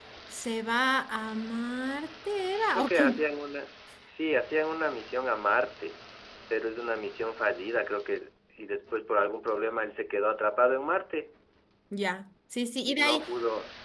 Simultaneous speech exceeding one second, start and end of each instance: none

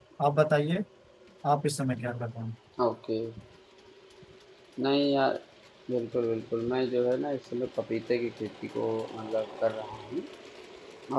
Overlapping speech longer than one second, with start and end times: none

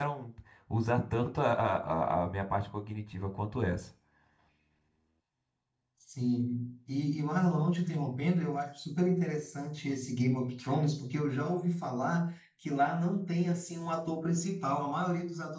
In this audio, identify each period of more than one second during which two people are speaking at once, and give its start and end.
none

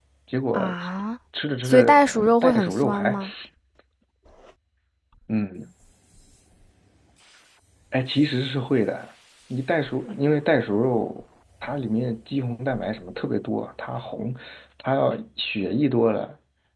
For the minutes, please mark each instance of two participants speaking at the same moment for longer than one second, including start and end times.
1.6-3.2

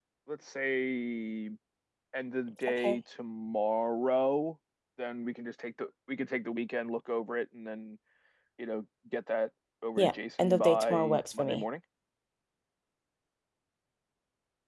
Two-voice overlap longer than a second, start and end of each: 10.0-11.6

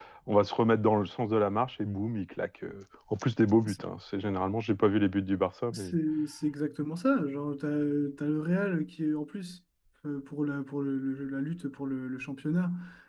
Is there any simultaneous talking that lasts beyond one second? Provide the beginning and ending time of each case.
none

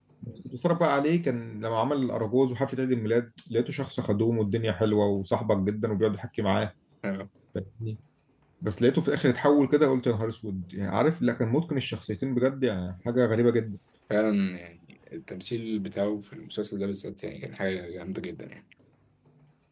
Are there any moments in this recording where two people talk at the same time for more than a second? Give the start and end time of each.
none

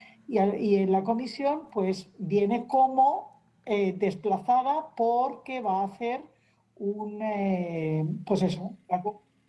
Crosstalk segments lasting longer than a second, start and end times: none

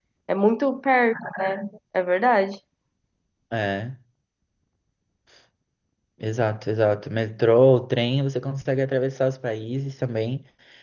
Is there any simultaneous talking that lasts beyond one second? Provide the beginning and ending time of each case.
none

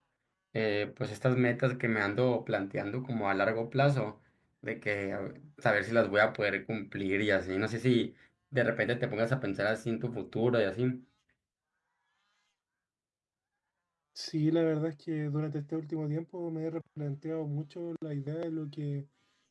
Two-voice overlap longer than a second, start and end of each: none

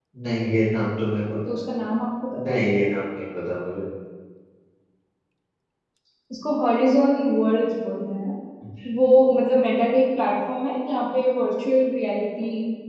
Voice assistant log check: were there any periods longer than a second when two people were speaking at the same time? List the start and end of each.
none

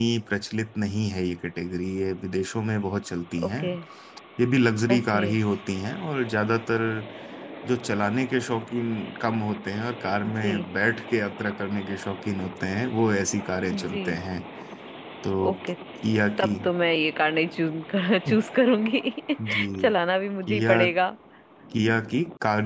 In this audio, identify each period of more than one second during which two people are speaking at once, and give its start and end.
none

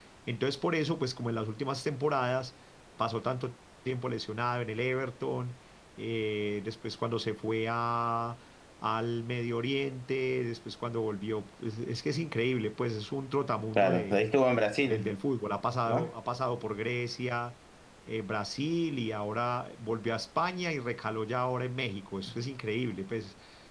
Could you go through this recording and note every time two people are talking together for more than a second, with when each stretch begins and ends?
none

